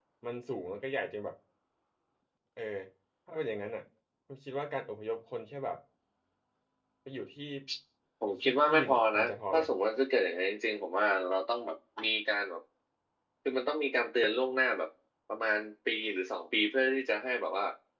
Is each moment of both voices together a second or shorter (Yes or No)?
No